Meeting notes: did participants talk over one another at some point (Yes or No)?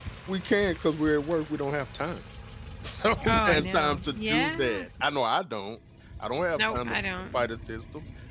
Yes